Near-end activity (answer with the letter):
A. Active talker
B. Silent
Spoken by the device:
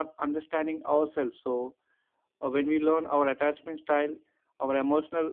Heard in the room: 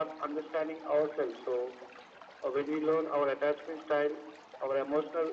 B